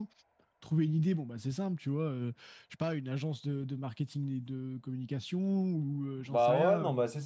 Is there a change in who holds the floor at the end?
Yes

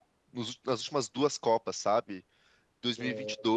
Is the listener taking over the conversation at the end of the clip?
No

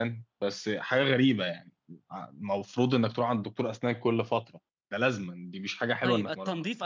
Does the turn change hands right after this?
Yes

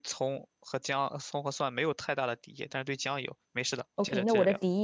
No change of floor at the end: No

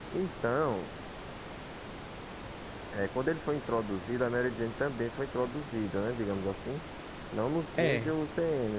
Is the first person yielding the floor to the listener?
No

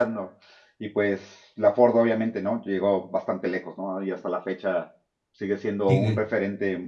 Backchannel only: Yes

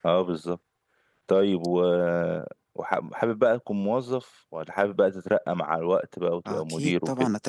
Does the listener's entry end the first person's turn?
Yes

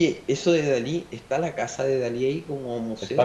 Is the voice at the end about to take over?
Yes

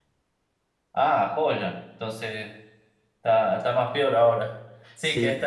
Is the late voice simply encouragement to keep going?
Yes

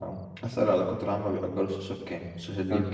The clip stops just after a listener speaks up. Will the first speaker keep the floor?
No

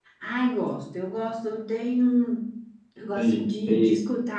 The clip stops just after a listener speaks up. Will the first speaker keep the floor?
Yes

